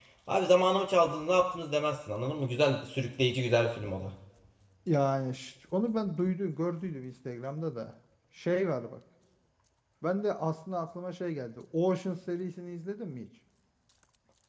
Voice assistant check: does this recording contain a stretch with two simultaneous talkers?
No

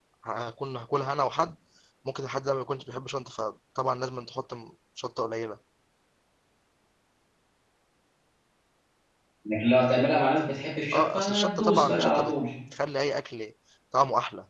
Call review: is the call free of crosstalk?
No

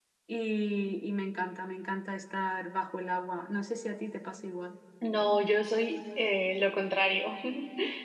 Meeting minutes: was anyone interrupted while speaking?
No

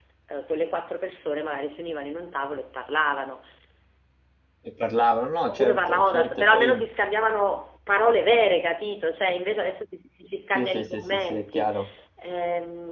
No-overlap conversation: No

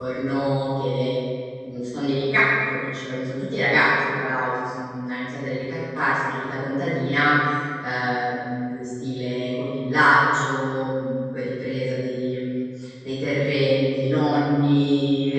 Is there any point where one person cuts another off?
No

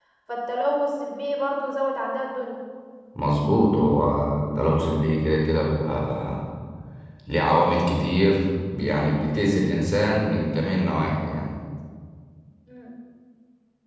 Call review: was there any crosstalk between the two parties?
No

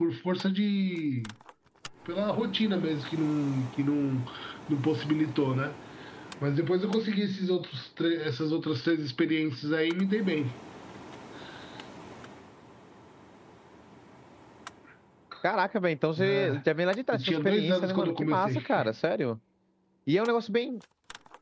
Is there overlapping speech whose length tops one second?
Yes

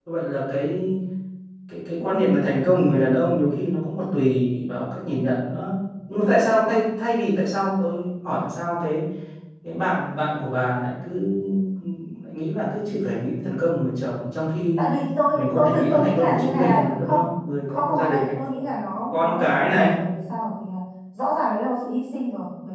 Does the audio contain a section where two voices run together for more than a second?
Yes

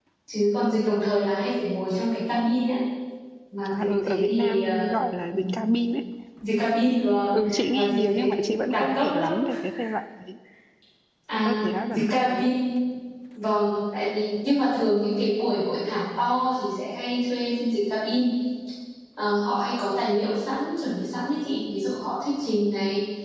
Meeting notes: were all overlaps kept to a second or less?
No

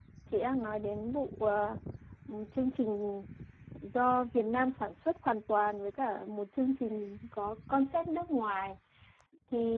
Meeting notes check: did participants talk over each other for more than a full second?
No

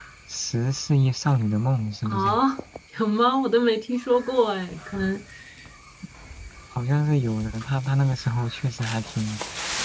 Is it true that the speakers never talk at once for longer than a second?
Yes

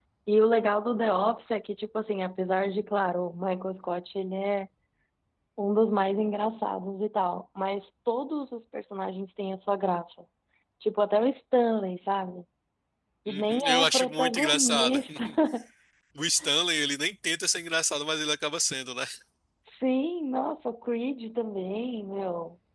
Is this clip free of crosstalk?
No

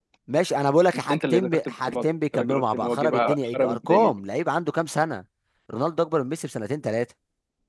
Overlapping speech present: Yes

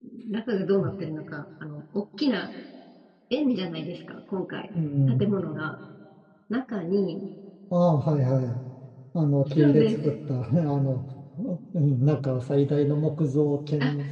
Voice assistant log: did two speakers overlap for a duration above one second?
No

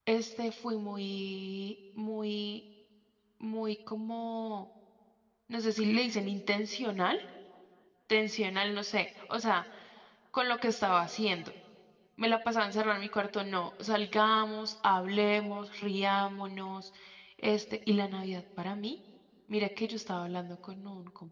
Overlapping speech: No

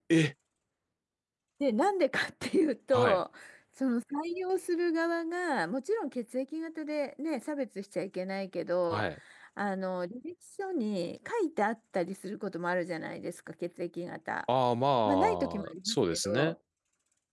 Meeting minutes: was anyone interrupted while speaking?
Yes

